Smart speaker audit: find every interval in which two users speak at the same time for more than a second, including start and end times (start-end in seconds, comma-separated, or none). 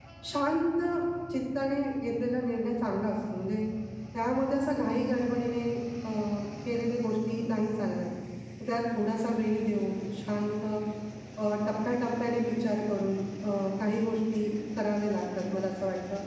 none